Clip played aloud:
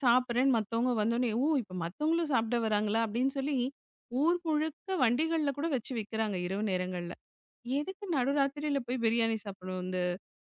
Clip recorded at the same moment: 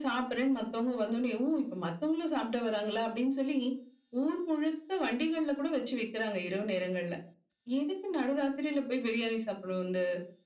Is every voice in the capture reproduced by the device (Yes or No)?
Yes